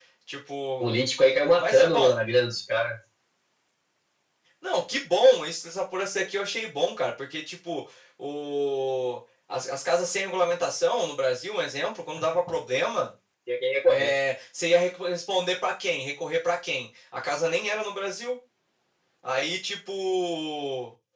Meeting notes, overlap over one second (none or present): none